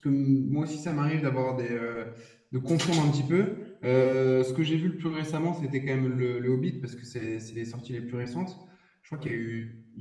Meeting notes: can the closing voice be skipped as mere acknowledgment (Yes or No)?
Yes